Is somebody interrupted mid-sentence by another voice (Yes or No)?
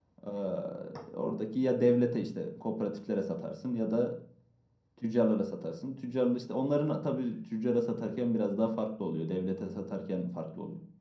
No